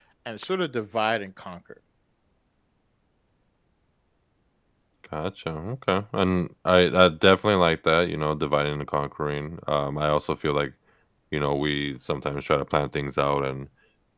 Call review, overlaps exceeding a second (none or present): none